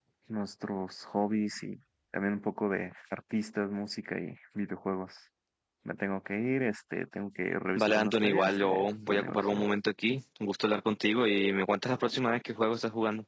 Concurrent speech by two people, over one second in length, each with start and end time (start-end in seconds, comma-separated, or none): 7.8-9.7